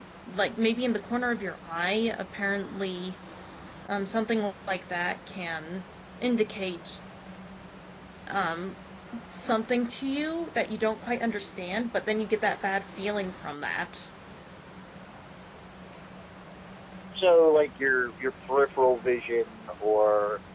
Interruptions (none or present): none